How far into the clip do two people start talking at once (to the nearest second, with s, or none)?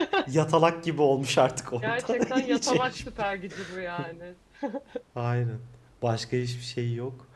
2 s